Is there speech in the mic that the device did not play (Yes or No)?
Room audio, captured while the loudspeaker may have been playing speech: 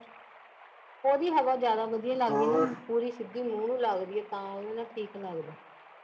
Yes